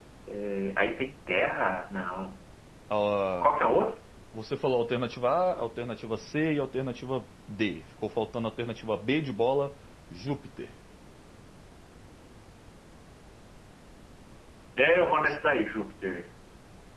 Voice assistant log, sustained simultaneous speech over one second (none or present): none